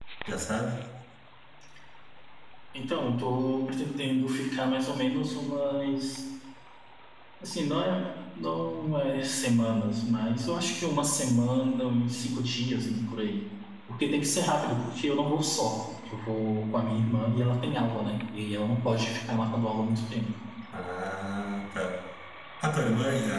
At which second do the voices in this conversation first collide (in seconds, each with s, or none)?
none